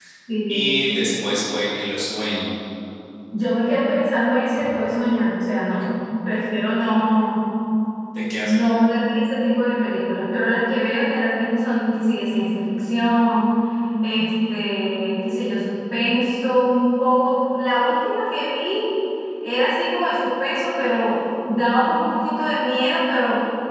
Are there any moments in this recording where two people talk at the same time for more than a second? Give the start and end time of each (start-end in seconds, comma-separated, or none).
none